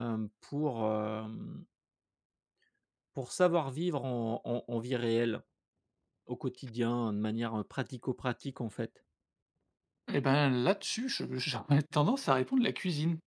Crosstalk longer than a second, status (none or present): none